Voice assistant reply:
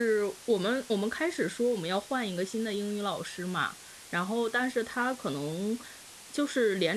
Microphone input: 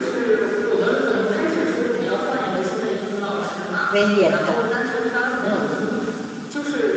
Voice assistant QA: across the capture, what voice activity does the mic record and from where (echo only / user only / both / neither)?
both